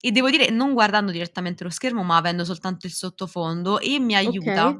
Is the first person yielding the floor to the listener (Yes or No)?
No